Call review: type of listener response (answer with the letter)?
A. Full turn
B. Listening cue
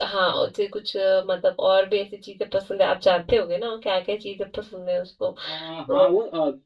A